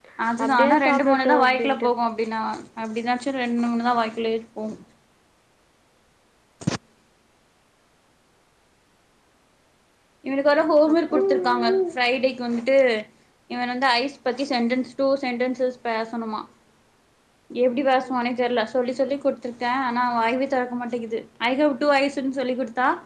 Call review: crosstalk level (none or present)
present